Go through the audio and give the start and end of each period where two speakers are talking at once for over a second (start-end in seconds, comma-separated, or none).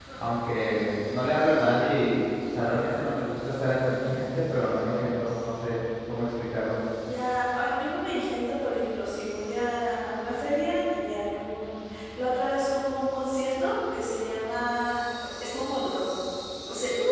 none